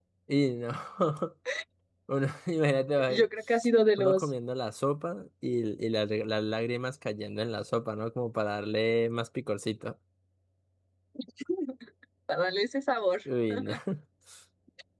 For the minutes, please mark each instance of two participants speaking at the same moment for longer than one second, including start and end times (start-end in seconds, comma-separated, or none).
none